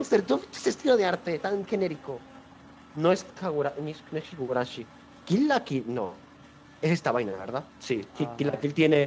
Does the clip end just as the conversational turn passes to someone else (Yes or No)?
No